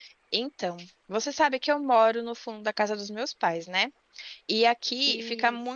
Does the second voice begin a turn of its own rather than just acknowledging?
No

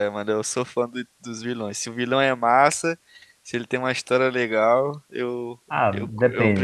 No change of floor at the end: No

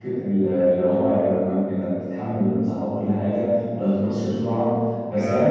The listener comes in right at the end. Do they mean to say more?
No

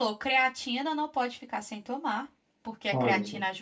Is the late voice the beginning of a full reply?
No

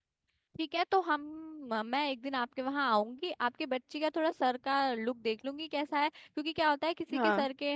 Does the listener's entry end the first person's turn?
No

